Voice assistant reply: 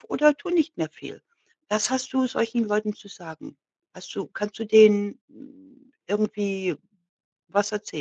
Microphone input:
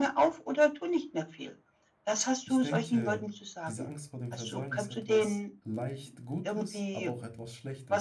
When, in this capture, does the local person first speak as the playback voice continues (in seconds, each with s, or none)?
2.4 s